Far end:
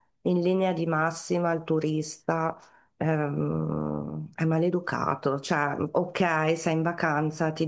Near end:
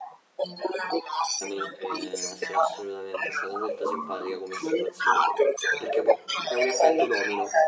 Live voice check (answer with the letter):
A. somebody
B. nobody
A